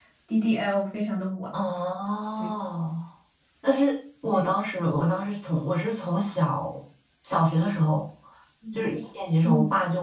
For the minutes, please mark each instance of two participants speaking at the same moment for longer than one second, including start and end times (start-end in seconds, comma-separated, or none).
none